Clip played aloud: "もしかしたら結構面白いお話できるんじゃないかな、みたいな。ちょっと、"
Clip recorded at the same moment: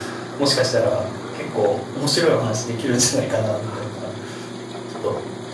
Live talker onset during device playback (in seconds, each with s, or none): none